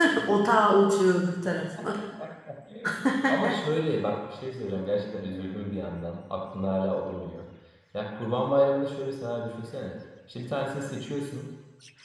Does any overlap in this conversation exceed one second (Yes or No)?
No